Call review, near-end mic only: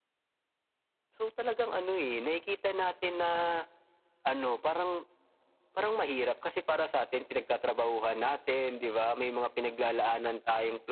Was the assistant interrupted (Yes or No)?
No